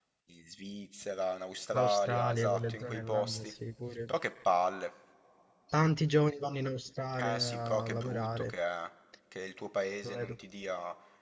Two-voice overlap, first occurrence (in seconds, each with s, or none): 1.7 s